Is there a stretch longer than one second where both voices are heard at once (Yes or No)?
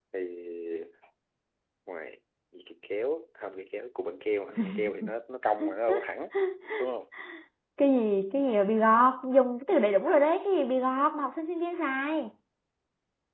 No